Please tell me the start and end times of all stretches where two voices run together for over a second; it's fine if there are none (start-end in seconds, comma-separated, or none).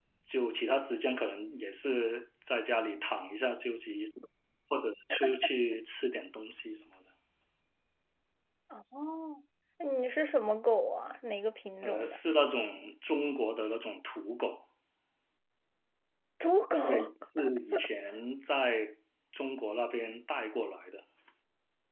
none